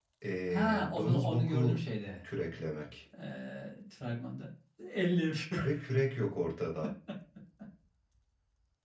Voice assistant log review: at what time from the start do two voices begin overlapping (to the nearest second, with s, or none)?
1 s